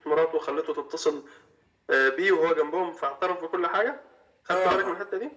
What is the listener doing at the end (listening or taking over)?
taking over